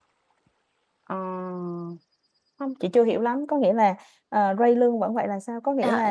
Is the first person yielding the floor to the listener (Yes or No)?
Yes